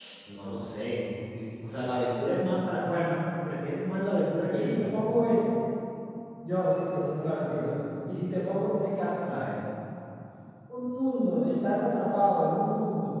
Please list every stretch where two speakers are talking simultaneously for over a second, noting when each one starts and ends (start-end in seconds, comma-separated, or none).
none